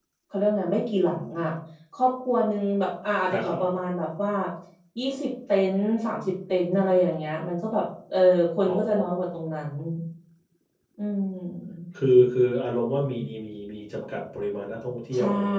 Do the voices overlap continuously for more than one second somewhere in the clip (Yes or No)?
No